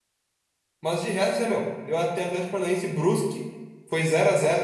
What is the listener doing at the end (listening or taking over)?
listening